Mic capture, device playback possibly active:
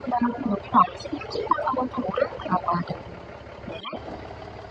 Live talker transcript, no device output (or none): none